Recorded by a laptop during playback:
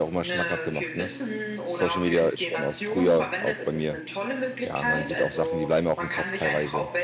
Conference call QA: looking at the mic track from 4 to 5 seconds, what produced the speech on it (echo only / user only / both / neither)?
both